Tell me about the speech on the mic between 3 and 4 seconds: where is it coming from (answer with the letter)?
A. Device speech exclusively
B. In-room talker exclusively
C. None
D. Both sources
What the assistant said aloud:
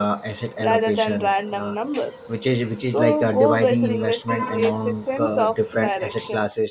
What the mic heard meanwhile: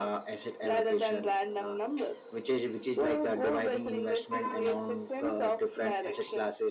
A